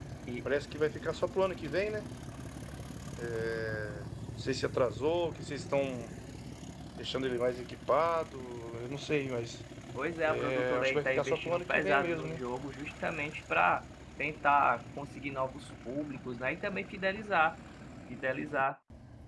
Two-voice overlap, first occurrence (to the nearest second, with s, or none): 10 s